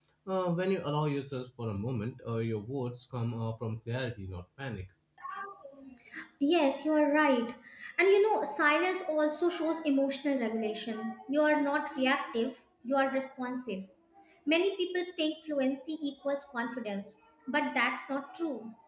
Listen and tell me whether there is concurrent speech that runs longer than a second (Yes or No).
No